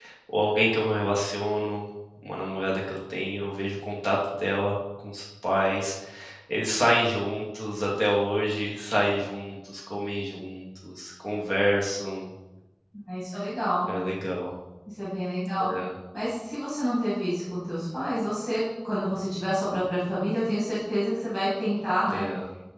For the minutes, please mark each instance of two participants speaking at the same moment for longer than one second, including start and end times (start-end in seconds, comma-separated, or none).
none